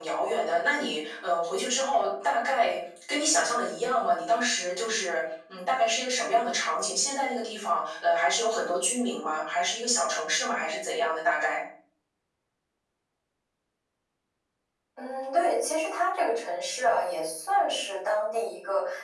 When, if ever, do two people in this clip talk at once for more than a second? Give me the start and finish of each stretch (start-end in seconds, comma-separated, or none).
none